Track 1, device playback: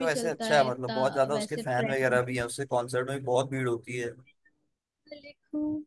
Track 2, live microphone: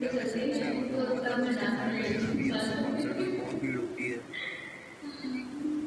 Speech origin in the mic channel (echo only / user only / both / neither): both